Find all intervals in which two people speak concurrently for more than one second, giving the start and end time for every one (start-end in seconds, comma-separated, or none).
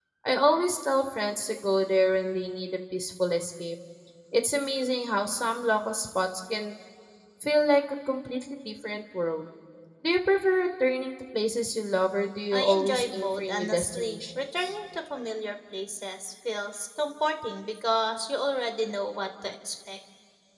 12.5-14.7